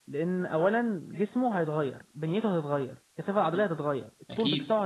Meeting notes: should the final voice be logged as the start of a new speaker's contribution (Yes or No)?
No